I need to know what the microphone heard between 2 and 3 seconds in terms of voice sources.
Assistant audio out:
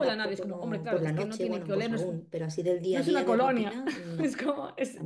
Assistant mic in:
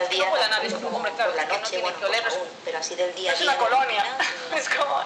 echo only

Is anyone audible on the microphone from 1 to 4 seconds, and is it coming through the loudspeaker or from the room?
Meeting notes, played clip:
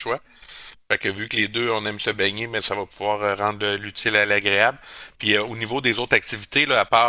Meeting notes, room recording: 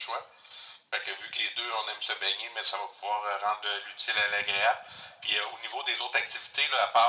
echo only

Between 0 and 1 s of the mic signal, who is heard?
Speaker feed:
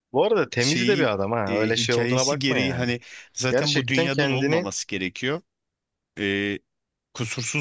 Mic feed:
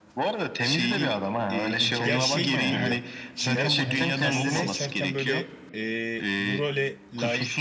echo only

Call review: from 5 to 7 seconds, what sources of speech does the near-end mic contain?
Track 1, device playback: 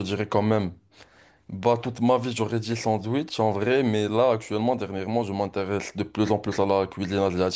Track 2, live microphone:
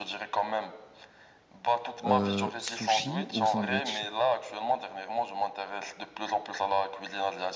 echo only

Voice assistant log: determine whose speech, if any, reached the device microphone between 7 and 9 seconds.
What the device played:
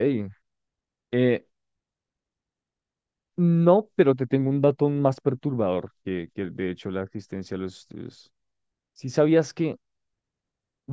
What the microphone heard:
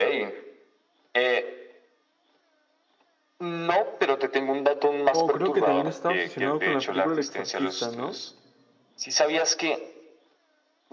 both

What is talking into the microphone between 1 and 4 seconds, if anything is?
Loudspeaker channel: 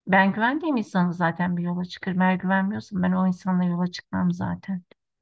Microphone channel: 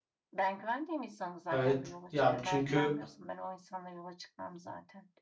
both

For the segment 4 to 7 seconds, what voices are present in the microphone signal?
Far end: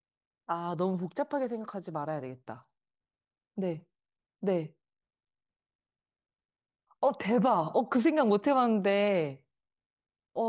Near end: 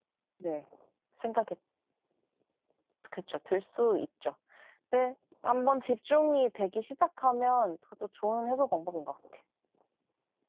user only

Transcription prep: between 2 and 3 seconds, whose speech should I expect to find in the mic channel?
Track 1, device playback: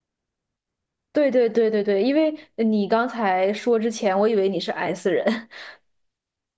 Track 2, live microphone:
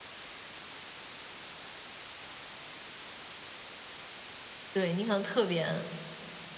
neither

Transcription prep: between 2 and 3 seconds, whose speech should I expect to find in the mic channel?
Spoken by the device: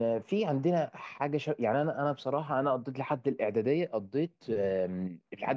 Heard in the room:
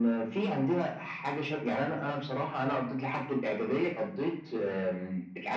echo only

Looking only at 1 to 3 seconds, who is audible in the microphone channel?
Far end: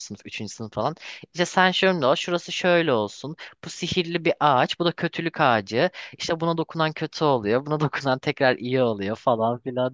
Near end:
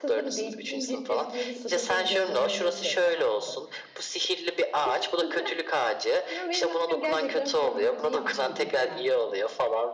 both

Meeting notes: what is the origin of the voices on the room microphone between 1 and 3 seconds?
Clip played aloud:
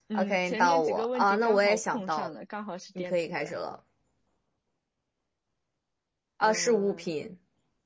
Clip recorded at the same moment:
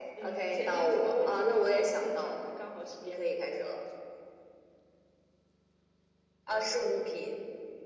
echo only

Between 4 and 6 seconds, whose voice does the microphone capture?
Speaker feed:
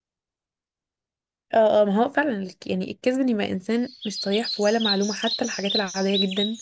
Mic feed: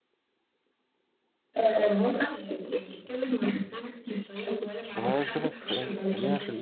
both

